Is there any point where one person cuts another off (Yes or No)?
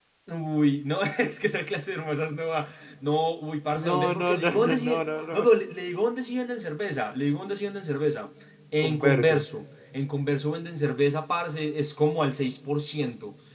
Yes